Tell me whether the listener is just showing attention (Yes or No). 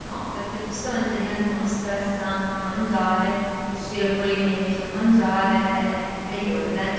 Yes